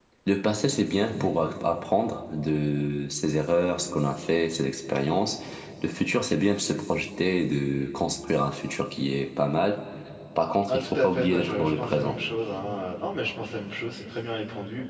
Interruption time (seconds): 10.7 s

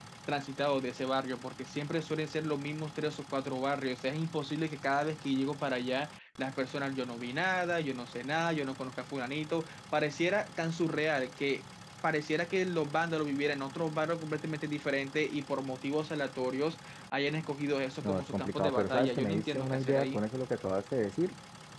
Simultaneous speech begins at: 18.0 s

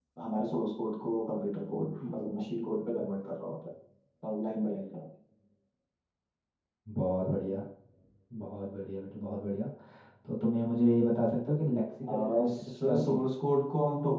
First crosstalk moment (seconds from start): 12.0 s

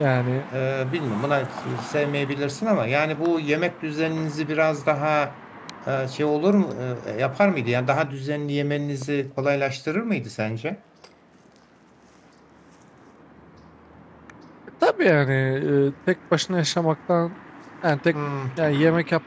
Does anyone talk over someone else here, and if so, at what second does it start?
none

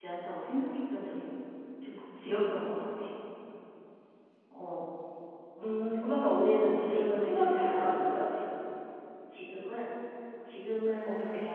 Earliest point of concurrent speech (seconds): 6.6 s

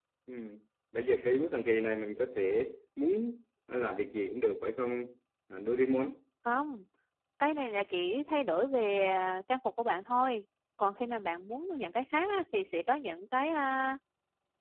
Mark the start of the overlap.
none

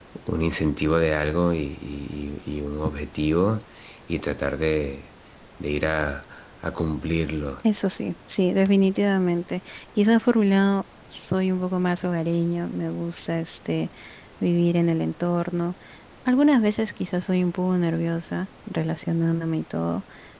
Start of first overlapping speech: none

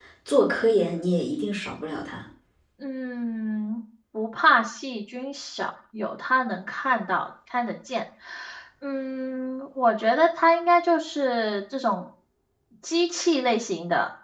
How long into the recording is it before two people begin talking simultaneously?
none

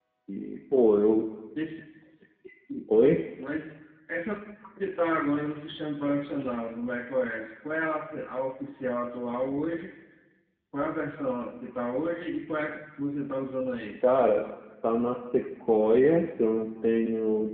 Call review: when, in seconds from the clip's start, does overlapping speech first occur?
none

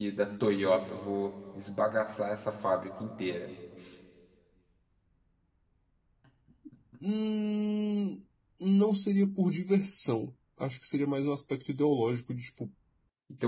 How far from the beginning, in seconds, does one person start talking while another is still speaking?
none

